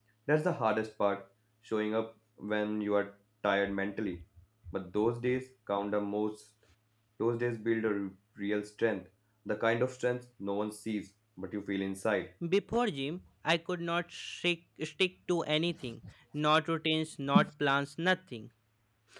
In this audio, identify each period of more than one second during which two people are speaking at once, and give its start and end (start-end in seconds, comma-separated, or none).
none